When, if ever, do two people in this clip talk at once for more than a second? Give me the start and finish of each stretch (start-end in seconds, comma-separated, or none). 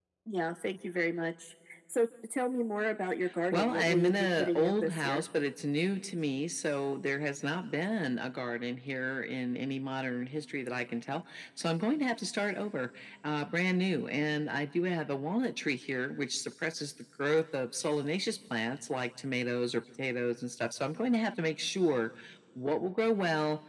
3.5-5.2